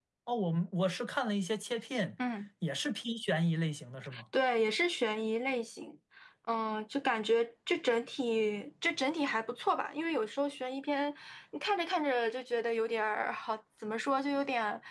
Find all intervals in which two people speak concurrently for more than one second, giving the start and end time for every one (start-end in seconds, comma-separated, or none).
none